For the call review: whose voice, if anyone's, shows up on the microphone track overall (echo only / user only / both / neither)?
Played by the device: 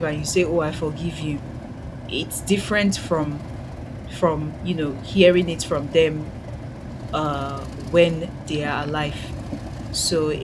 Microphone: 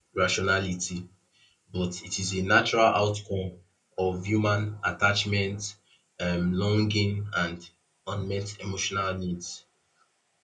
user only